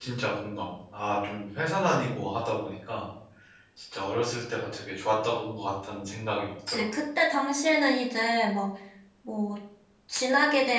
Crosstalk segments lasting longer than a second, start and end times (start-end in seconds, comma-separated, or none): none